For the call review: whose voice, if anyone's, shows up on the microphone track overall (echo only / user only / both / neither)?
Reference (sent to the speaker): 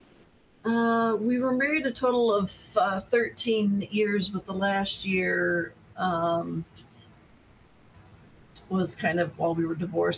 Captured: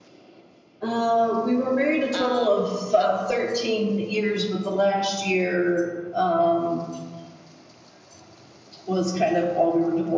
both